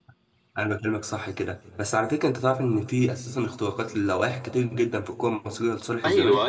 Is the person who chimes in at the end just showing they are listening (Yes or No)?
No